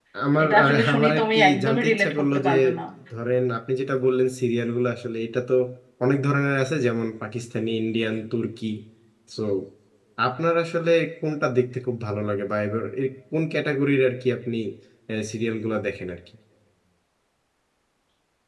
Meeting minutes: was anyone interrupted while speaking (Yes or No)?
Yes